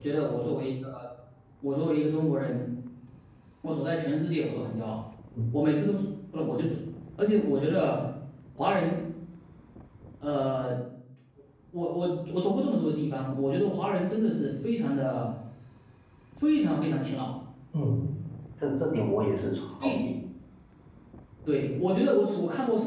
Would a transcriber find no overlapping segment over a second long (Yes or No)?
Yes